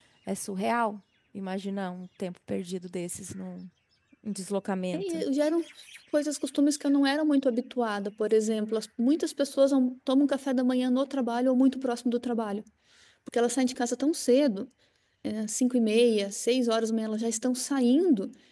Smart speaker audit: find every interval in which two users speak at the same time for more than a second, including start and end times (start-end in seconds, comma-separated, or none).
none